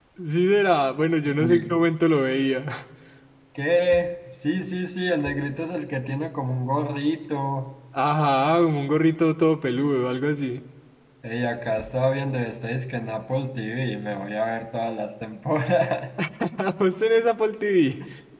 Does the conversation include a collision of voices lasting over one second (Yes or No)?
No